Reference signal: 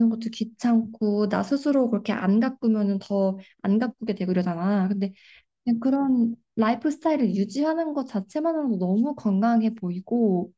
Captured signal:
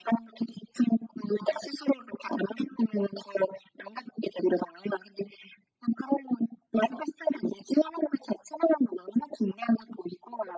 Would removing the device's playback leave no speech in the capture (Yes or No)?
Yes